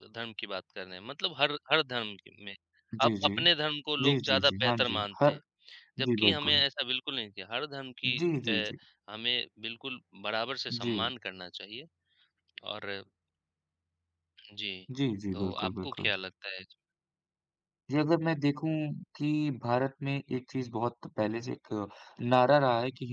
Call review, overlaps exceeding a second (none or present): present